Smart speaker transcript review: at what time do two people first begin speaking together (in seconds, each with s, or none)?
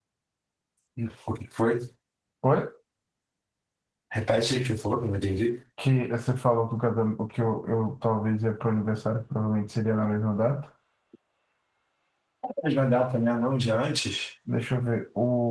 none